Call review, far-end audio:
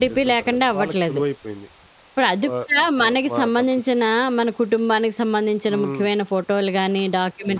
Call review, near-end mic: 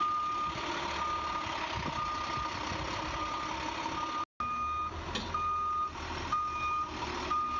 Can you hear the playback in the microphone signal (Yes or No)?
No